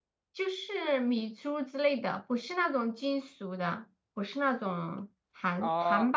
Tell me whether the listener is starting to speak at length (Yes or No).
Yes